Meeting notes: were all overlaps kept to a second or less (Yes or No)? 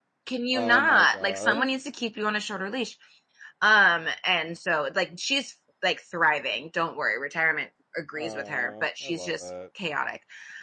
No